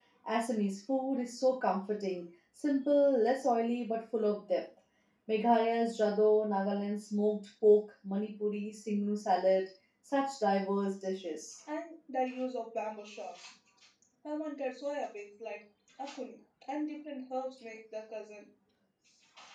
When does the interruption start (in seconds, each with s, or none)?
none